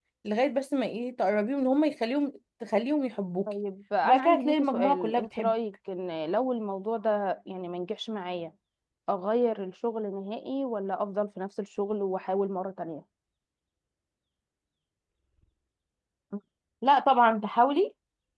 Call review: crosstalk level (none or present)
present